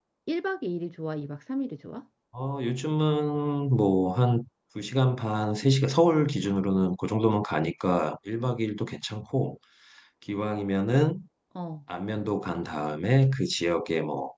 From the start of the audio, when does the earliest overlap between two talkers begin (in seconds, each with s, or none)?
none